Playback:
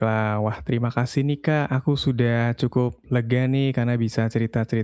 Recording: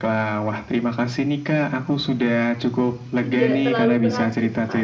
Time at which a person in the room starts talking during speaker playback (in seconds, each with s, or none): 3.2 s